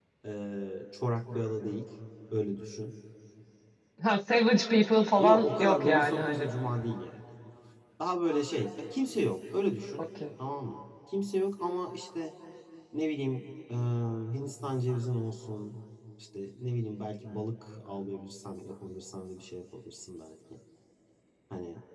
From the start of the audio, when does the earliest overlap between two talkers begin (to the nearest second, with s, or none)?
5 s